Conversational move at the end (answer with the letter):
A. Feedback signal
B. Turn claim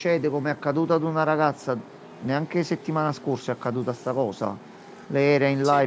A